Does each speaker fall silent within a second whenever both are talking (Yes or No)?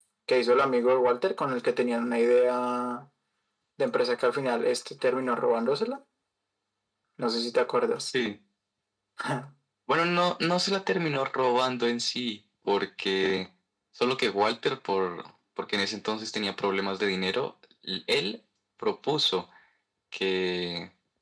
Yes